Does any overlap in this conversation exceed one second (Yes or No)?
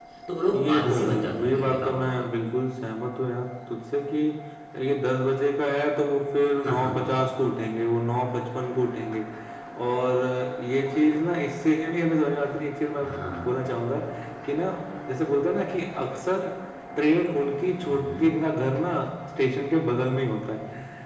Yes